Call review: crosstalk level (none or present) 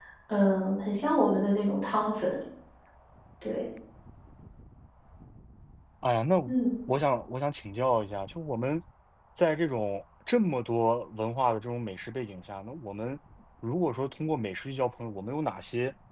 none